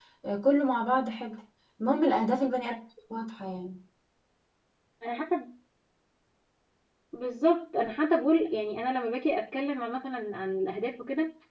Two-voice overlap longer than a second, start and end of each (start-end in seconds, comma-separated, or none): none